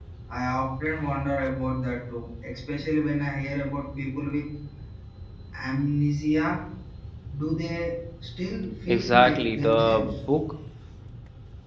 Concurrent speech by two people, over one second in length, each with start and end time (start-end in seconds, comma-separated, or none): 8.9-10.2